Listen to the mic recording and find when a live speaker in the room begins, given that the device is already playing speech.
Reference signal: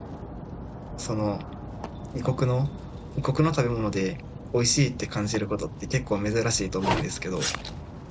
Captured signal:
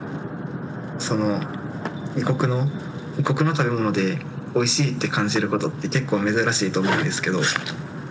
none

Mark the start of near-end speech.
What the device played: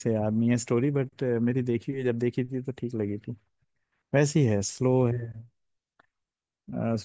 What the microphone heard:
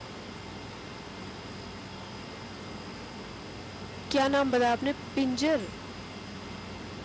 4.1 s

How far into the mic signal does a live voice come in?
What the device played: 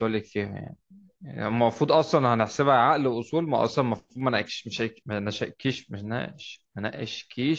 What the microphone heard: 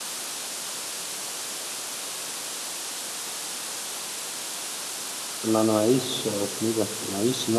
5.4 s

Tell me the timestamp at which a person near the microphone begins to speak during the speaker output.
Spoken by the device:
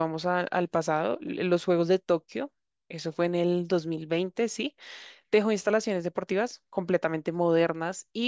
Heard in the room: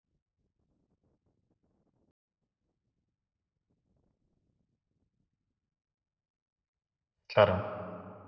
7.3 s

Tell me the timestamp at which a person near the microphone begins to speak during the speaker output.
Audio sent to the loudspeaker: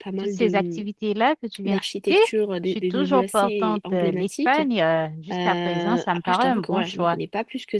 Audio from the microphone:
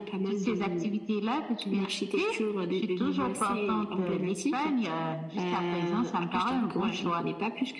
none

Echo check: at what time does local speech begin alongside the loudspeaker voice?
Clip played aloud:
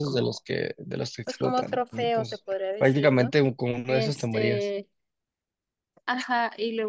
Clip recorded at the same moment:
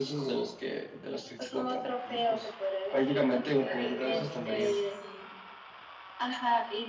3.2 s

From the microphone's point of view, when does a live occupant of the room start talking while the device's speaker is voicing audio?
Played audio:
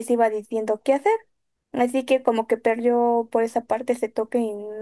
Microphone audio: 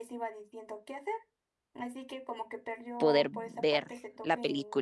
3.0 s

